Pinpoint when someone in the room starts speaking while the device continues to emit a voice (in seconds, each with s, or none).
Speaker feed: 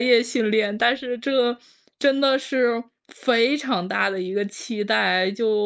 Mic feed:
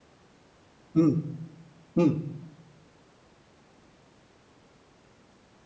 0.9 s